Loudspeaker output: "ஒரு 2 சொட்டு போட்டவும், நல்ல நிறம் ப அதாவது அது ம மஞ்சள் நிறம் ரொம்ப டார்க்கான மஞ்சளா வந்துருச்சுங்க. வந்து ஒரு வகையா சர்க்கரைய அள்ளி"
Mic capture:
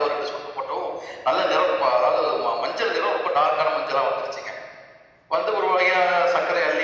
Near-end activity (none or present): none